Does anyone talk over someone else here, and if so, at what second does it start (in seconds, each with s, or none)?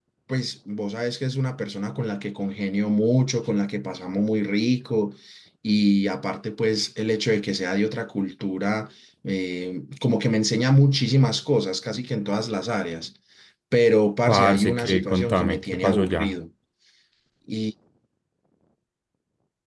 14.3 s